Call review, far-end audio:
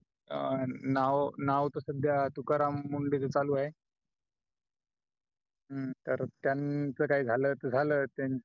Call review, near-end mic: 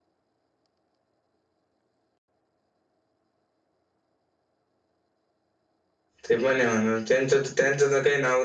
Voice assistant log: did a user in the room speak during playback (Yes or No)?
Yes